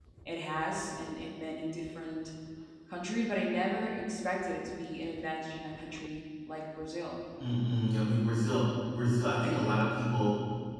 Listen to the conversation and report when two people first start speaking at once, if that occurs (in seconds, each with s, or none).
none